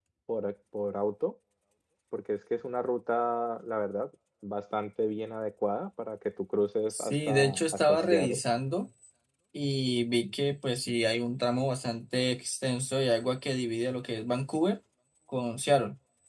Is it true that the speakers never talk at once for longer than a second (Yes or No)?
No